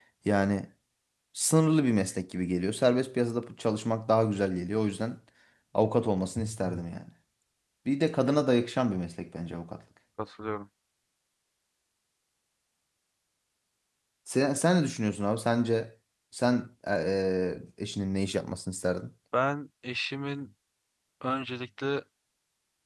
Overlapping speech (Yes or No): No